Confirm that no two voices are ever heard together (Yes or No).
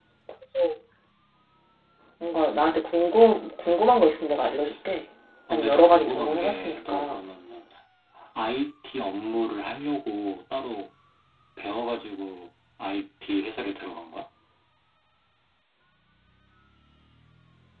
No